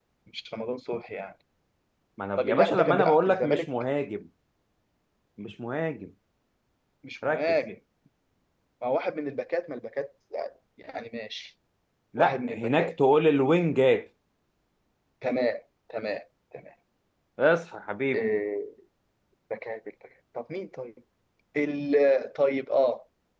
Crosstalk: present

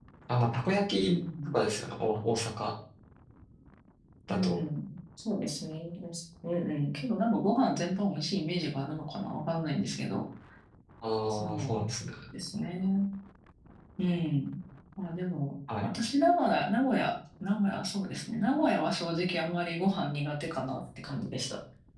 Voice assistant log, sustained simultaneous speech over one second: none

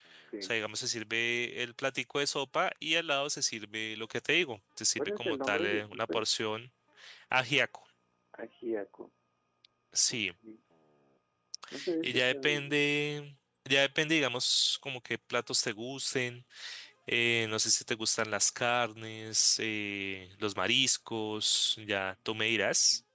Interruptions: present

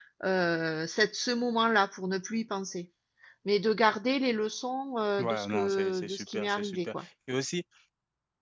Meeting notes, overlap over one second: present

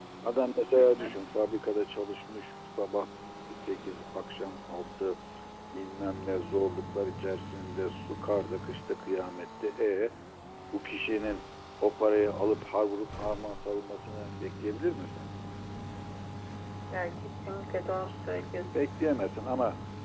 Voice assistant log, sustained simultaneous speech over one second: none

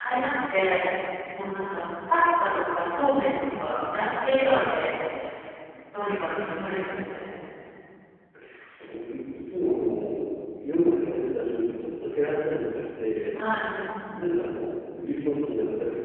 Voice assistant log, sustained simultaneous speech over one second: none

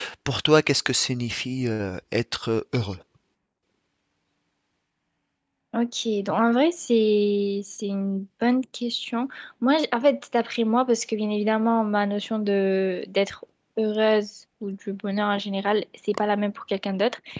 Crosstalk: none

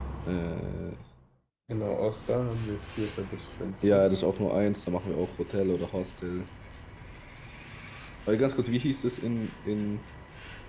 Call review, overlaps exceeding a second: none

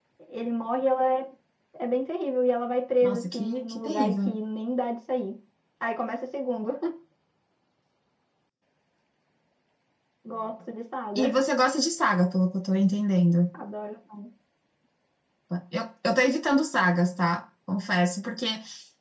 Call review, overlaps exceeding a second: present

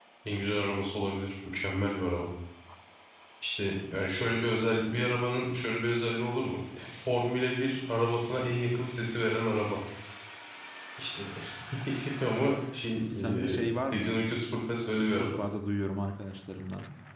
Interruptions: present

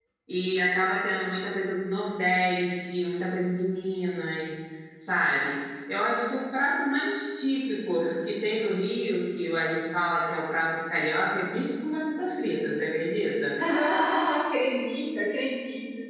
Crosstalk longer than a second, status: none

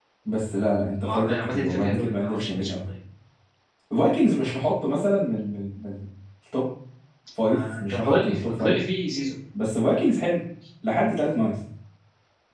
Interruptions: present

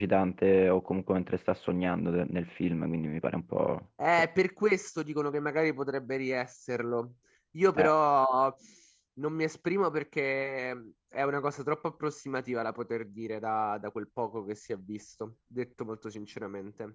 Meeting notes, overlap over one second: none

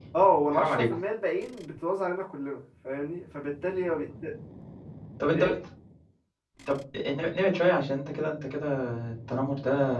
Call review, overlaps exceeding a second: none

